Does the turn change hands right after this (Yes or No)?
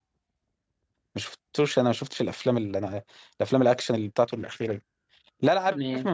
No